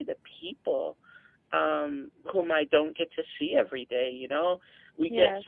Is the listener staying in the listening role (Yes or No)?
Yes